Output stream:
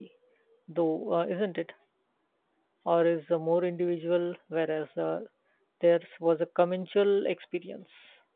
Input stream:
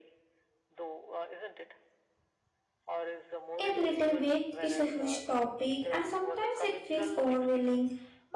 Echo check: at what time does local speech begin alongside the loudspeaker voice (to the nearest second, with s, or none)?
4 s